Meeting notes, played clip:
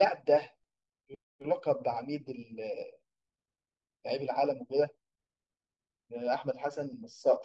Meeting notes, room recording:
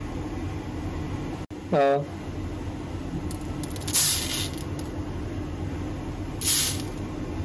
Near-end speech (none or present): present